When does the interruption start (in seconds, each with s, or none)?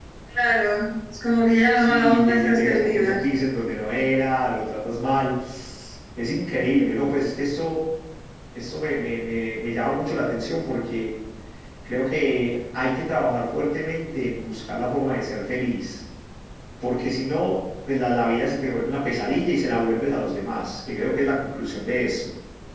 1.7 s